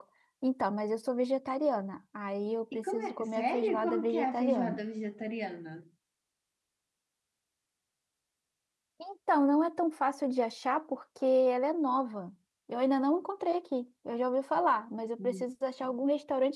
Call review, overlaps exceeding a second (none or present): present